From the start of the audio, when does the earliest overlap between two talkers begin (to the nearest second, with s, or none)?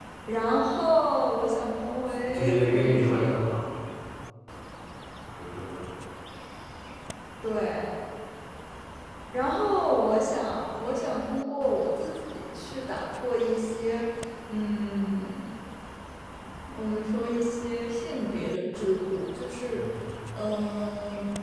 2 s